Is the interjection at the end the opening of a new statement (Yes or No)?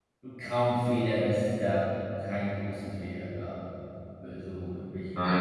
Yes